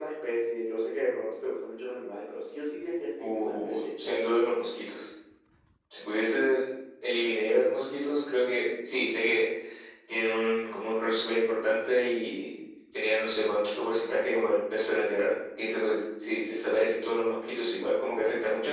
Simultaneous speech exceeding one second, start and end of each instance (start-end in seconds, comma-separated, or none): 3.2-4.6